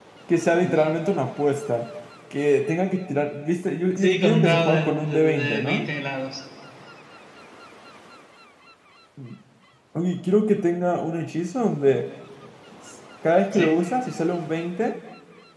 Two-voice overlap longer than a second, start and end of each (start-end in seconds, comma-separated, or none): 4.0-5.8